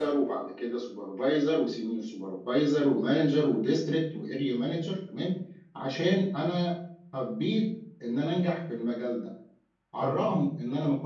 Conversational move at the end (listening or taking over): listening